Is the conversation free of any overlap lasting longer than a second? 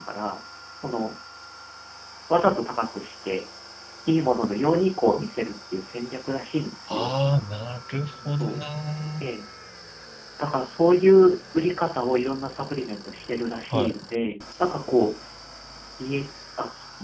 Yes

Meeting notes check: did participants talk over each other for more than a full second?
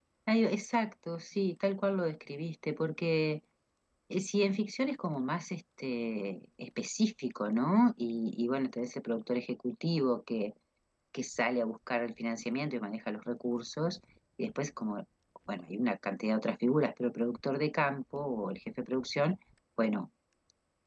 No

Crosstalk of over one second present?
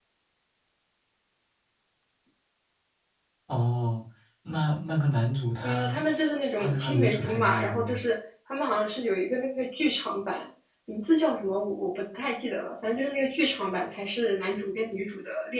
Yes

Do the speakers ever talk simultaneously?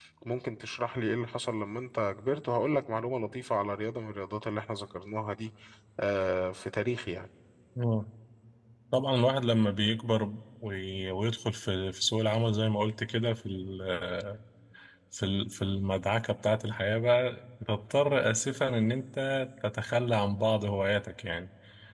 No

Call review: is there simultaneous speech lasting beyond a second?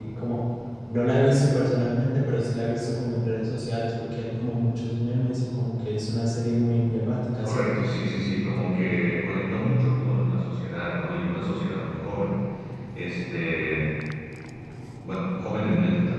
No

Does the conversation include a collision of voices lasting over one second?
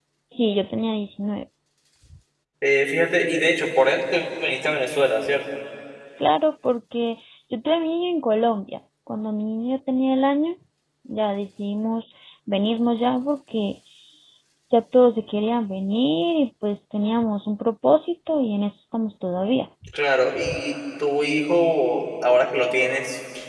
No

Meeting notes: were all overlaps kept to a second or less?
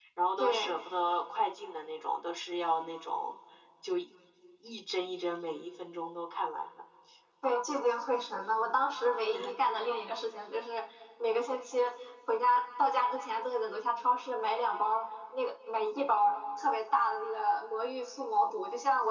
Yes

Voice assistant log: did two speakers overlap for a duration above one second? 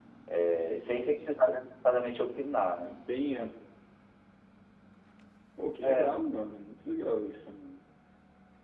No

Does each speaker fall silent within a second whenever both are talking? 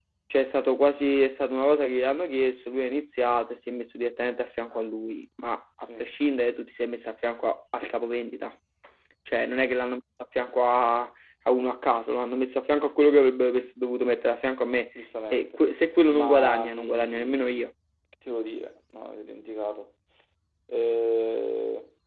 No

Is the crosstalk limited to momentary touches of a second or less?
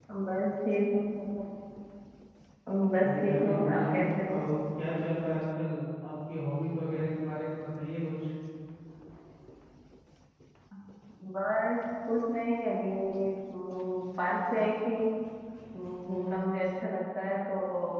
No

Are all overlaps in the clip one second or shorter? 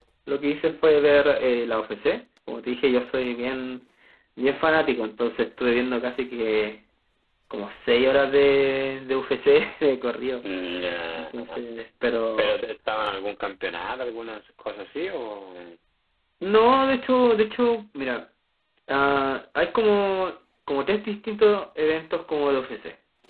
Yes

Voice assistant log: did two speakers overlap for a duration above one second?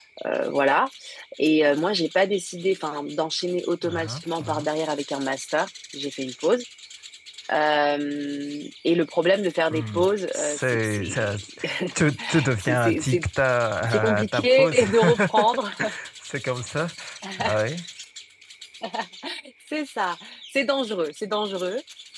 Yes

